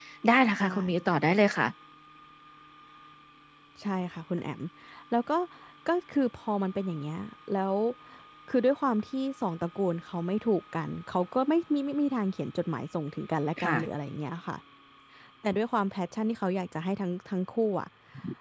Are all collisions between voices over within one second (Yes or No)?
Yes